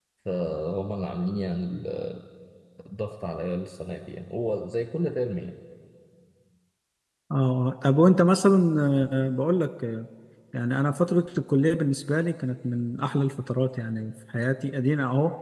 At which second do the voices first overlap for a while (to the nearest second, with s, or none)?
none